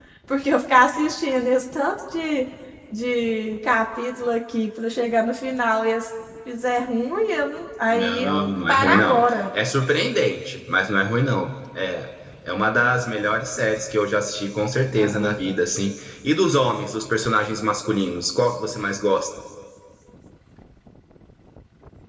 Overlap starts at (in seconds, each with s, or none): 7.9 s